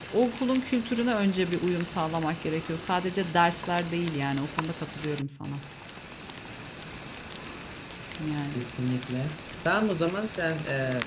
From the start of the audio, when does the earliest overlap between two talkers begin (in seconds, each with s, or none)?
none